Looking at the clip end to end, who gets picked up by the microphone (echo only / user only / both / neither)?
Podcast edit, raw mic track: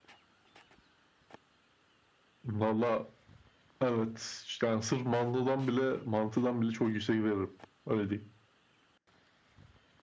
echo only